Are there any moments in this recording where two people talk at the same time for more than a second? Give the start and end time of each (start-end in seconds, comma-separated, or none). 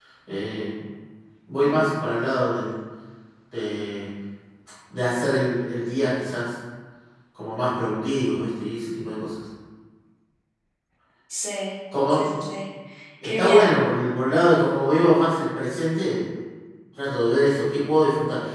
none